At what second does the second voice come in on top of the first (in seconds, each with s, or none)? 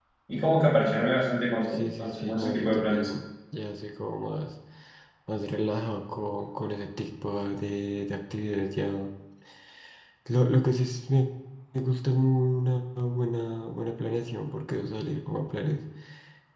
1.6 s